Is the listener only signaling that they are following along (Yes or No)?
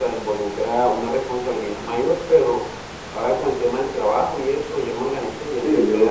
No